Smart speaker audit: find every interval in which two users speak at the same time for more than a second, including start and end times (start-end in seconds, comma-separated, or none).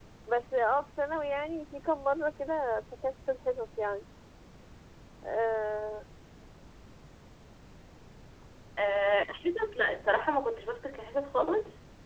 none